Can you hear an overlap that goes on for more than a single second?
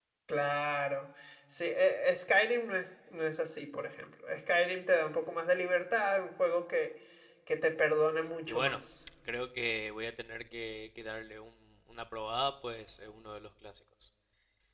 No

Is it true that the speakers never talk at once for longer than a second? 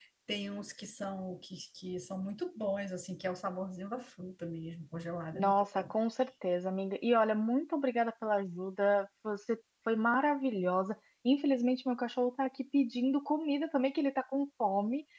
Yes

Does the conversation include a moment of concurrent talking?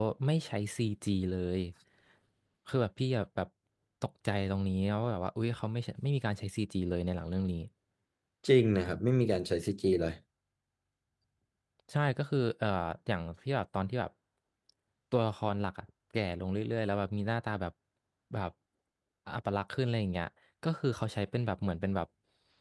No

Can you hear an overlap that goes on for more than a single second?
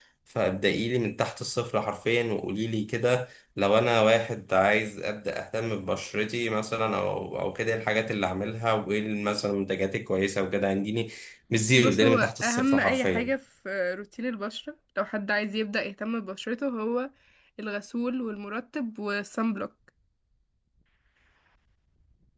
Yes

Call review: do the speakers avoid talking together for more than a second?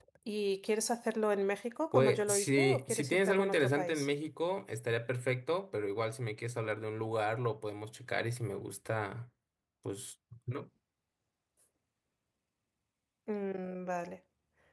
No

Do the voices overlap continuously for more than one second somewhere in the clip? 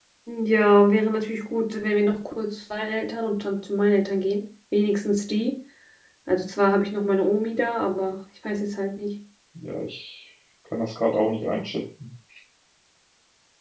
No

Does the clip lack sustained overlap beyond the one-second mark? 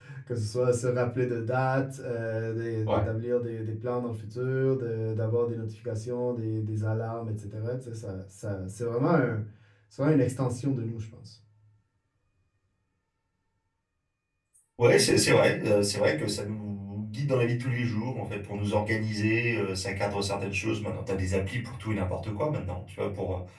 Yes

